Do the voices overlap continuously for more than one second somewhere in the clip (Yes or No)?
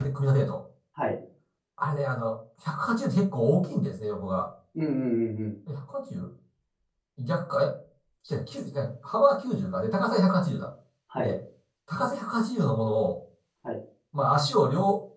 No